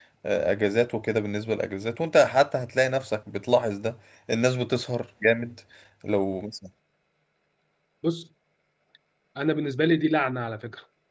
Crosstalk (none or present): none